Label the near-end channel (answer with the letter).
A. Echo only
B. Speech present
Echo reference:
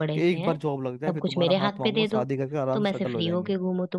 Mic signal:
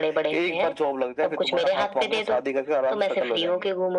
A